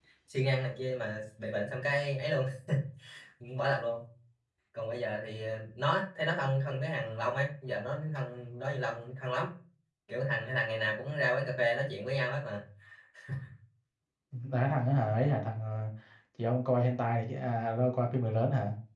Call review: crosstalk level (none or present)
none